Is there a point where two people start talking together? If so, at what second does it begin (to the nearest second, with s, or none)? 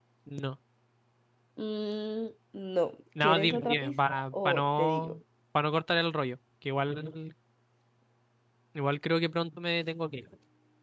3 s